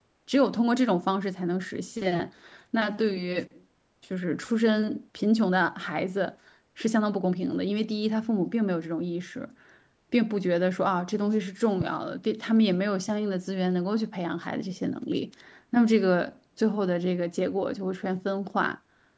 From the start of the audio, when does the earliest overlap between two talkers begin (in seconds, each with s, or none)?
none